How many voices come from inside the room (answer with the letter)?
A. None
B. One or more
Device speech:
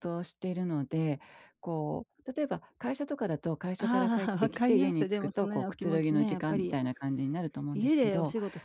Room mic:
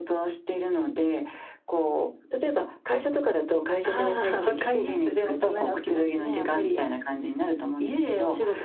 A